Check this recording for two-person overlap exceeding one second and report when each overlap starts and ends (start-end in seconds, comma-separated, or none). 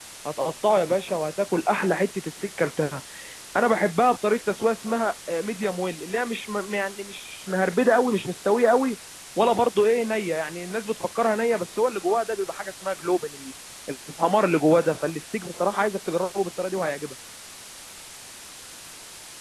none